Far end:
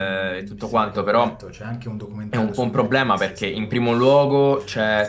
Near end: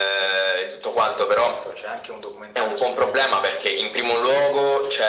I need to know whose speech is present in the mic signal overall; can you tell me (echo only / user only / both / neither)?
echo only